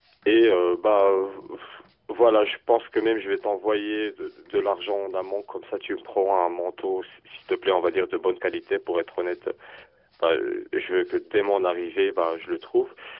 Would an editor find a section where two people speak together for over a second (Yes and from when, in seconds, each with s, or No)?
No